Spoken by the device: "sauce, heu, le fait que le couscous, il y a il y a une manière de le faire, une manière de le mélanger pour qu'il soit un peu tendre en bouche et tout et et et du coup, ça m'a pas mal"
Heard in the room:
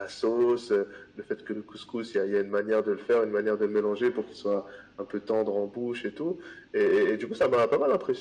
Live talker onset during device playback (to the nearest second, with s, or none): none